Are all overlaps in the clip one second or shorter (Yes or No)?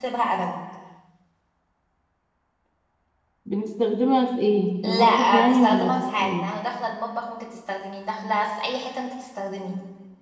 No